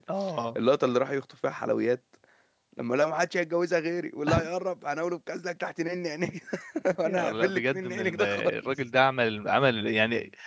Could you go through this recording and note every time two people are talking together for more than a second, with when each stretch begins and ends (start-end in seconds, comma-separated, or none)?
7.0-8.5